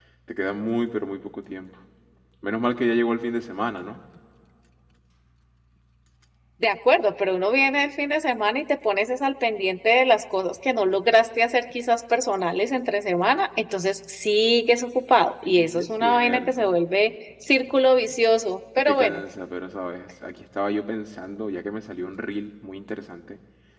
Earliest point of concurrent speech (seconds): 15.4 s

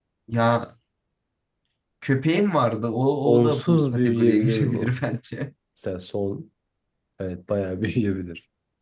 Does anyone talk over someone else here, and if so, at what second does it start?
3.3 s

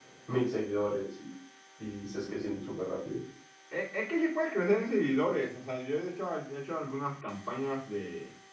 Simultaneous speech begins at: none

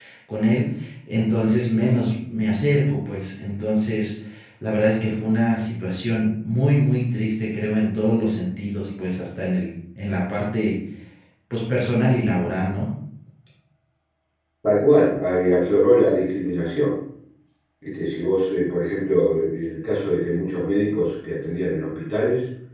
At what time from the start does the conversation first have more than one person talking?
none

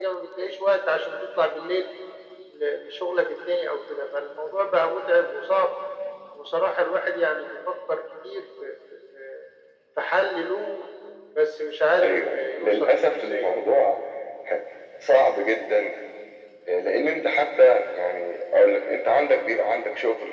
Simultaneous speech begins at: 12.0 s

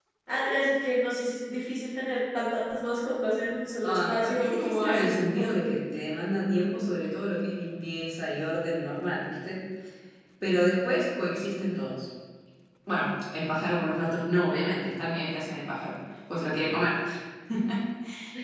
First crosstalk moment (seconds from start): 3.8 s

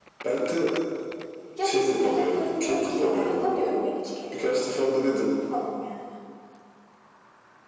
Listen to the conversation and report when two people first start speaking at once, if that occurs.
1.6 s

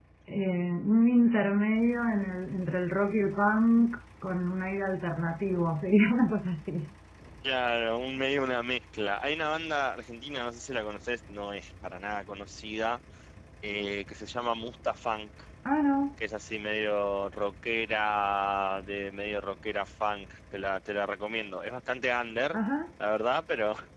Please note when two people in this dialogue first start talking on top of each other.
none

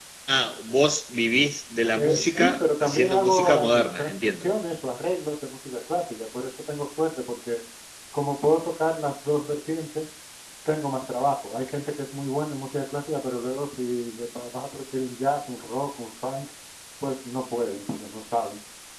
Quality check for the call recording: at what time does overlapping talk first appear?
1.9 s

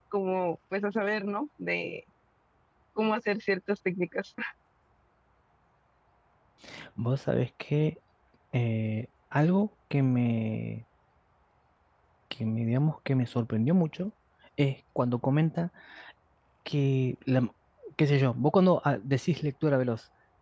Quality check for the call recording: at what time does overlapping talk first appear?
none

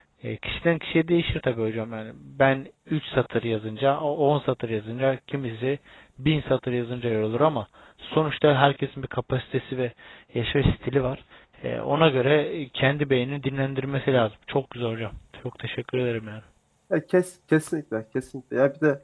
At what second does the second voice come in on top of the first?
none

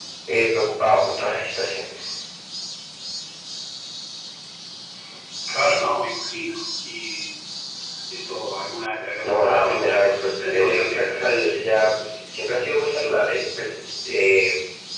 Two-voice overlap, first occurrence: 9.2 s

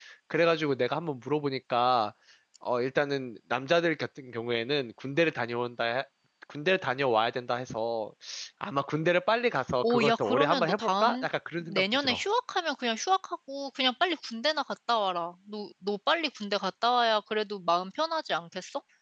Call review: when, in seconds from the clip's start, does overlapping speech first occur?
9.8 s

